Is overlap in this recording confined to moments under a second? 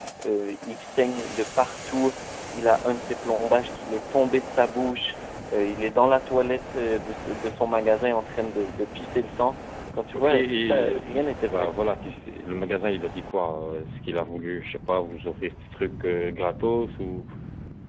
No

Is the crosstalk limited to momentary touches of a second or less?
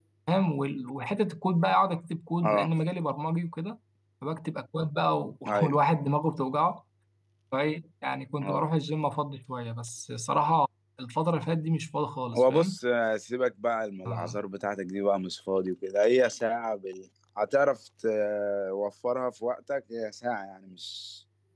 Yes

